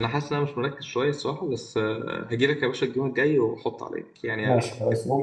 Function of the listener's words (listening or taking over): taking over